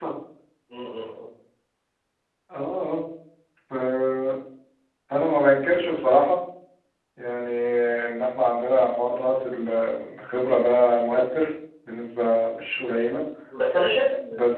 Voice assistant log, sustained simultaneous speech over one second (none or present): none